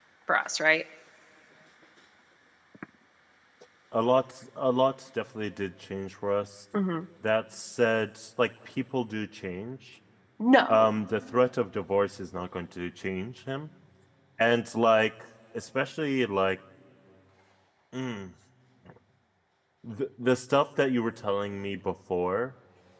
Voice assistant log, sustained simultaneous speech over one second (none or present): none